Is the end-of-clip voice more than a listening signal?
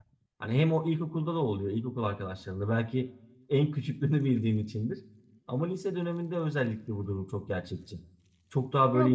Yes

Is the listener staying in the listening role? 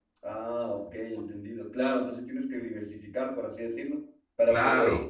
Yes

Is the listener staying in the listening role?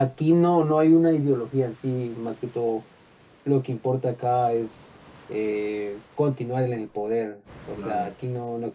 Yes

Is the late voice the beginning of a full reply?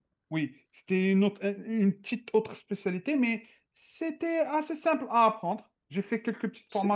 Yes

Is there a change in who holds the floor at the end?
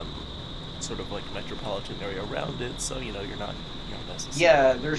Yes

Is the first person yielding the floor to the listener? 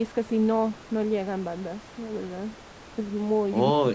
Yes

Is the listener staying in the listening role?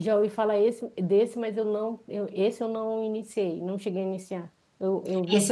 No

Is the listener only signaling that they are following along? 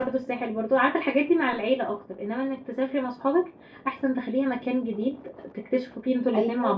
No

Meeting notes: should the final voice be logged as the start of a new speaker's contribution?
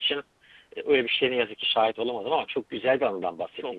Yes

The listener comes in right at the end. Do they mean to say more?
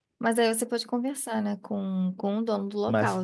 Yes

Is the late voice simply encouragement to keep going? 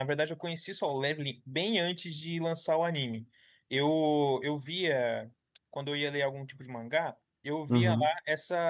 Yes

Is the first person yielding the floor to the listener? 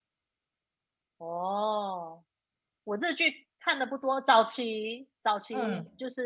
No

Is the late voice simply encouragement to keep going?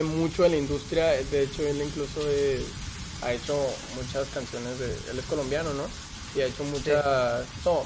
Yes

